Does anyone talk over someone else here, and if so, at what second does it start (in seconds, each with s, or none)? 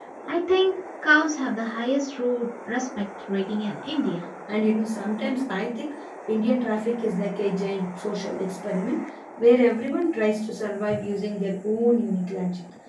none